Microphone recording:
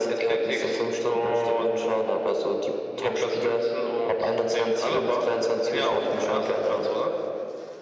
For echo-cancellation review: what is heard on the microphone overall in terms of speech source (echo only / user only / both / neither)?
echo only